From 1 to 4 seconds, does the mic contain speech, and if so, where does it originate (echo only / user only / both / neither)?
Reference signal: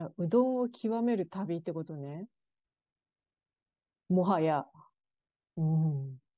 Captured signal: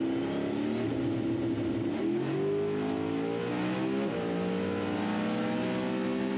neither